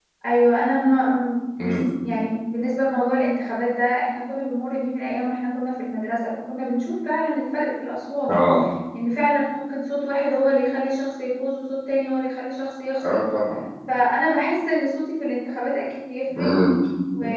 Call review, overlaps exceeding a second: none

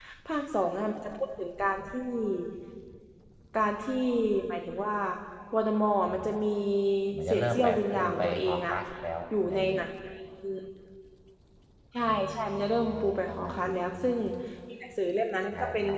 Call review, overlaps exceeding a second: present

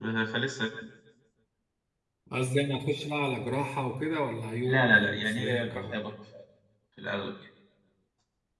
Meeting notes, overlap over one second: present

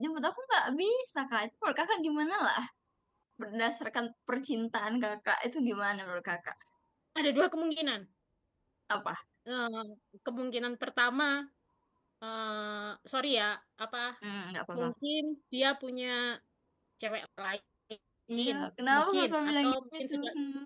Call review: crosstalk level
present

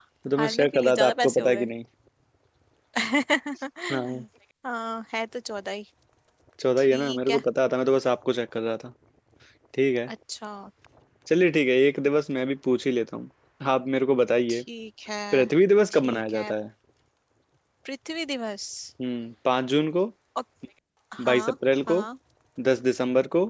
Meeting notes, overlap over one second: present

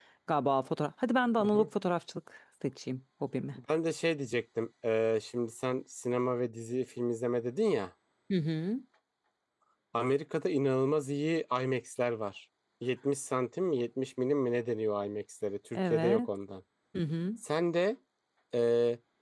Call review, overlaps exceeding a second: none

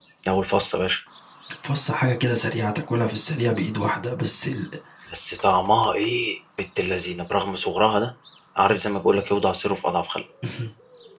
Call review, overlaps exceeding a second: none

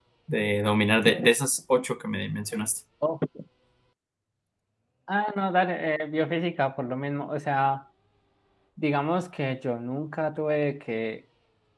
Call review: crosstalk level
none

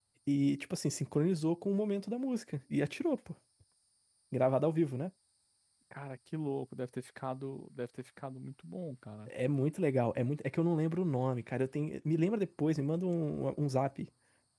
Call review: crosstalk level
none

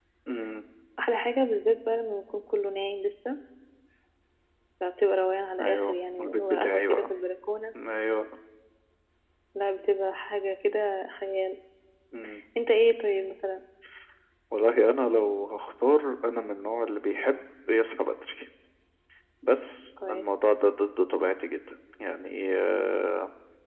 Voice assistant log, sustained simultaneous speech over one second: present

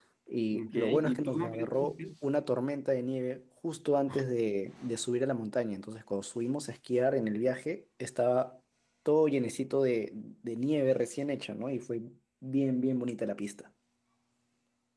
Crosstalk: present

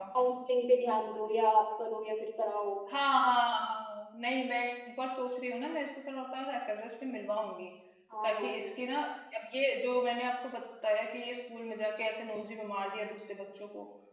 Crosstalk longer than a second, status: none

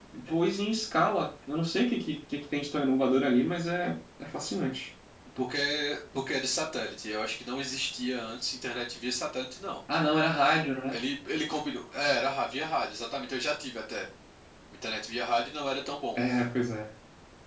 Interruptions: none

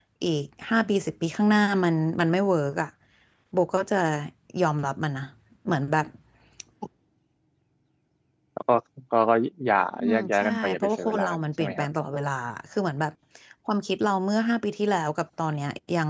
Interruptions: present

